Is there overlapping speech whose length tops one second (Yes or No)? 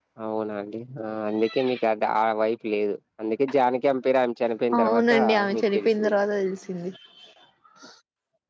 Yes